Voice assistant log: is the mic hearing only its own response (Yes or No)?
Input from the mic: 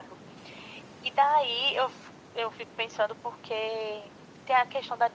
Yes